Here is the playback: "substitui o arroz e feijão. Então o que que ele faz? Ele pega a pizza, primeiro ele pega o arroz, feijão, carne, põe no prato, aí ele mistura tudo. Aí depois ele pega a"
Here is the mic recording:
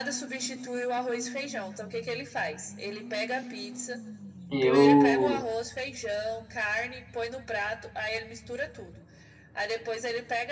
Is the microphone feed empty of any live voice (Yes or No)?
No